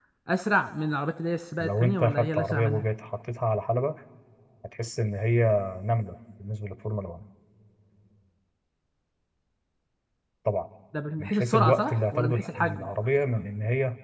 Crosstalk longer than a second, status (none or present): present